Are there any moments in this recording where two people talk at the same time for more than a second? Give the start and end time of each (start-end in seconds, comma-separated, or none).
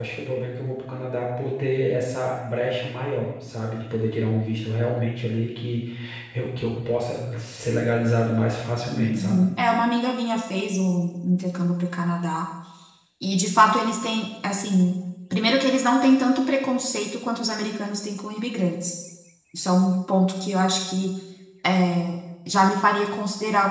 none